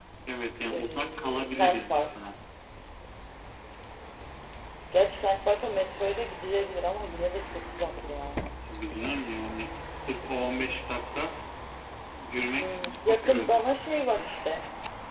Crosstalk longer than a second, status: present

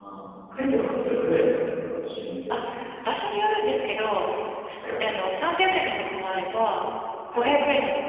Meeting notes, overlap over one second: none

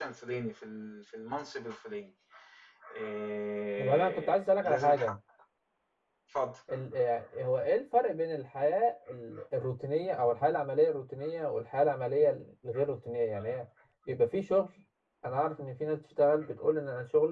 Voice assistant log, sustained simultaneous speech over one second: present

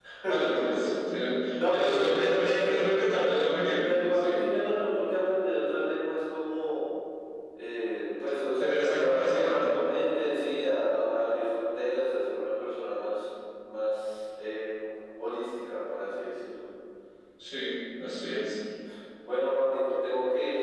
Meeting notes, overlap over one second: present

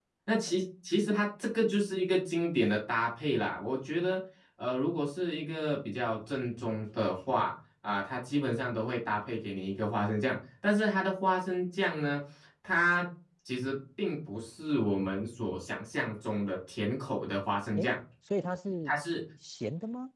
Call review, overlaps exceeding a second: none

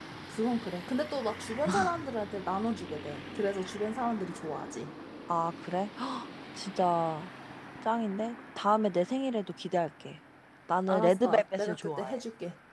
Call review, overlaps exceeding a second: present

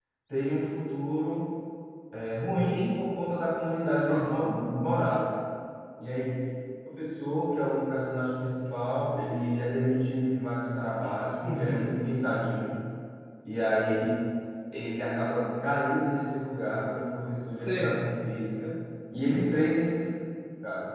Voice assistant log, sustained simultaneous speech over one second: none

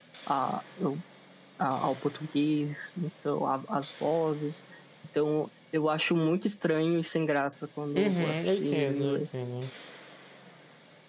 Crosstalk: present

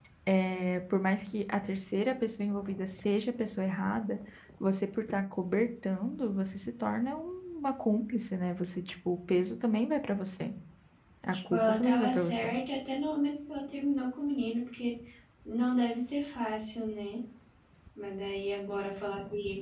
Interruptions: present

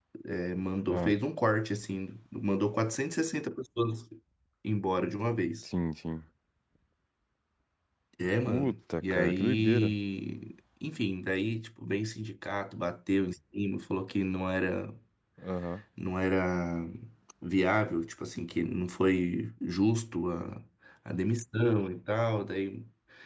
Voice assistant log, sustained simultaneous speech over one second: present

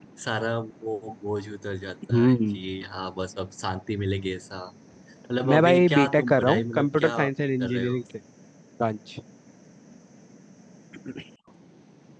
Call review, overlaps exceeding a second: present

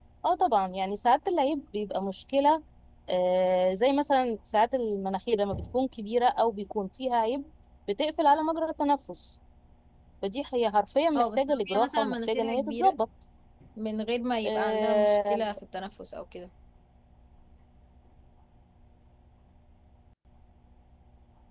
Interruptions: present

